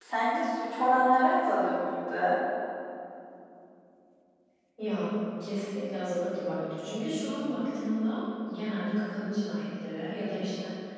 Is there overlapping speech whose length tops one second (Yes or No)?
No